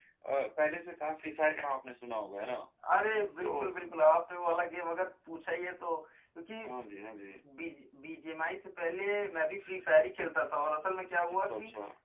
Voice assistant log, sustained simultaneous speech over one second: none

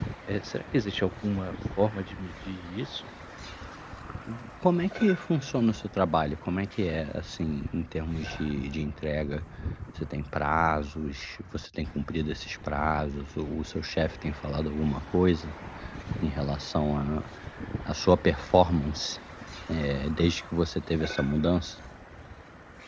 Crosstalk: none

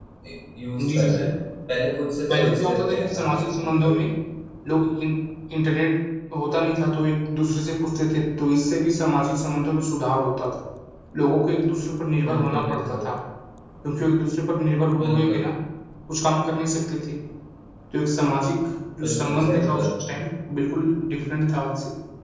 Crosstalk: present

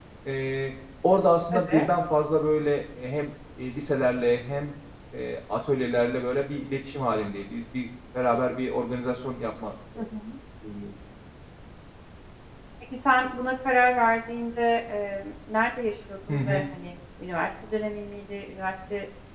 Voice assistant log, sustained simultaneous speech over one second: none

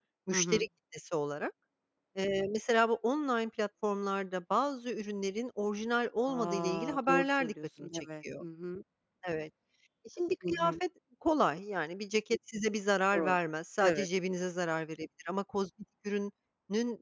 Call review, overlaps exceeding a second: present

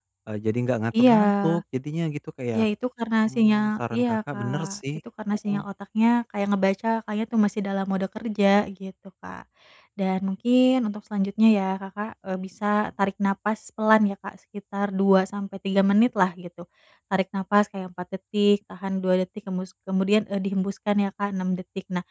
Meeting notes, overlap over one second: present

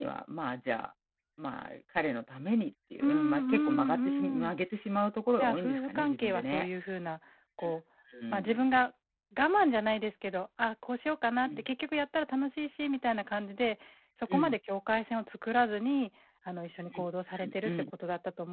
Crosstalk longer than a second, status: present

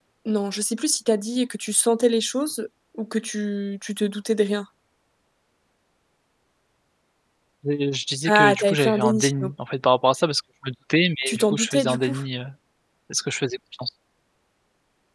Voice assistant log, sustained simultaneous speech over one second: present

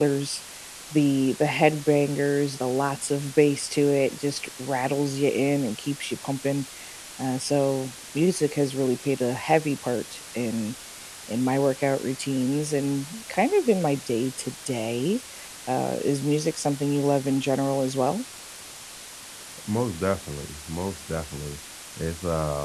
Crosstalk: none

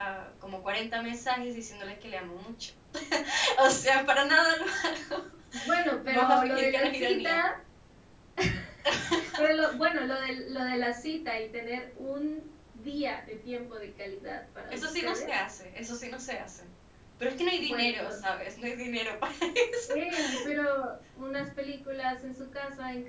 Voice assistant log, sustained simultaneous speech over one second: present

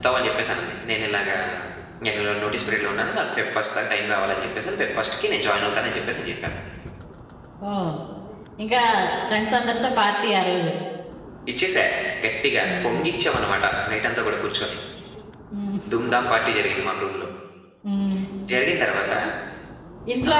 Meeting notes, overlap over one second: none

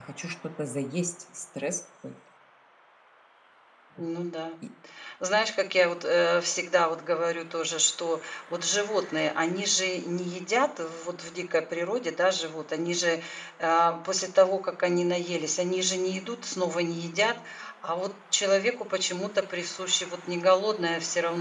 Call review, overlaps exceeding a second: none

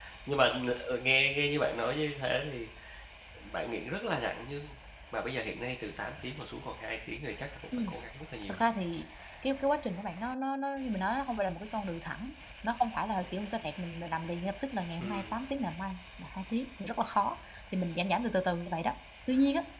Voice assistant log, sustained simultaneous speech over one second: none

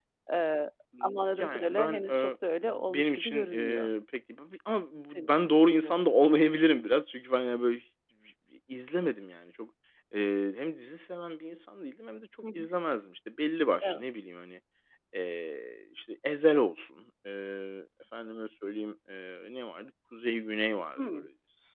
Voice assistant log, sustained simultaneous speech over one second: present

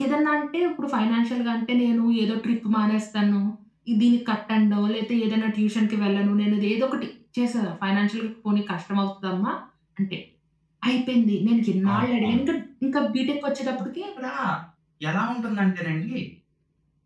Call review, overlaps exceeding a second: none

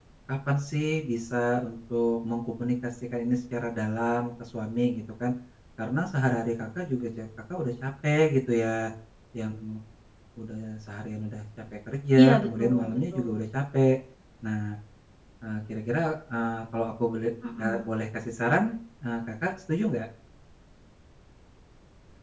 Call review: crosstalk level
present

